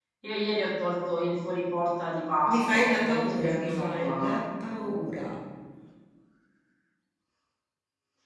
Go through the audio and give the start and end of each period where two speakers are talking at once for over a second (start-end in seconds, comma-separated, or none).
2.5-4.4